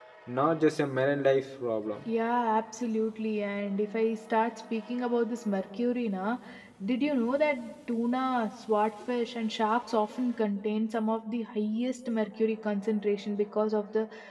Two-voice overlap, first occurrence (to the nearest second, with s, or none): none